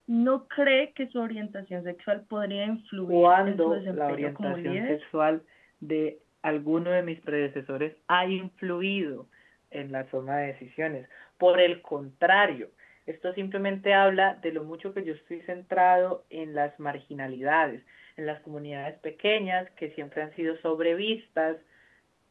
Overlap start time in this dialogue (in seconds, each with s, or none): 3.0 s